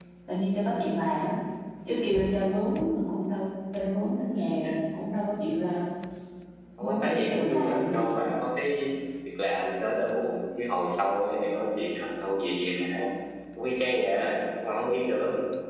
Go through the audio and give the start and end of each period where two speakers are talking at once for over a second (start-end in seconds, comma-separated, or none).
6.8-8.1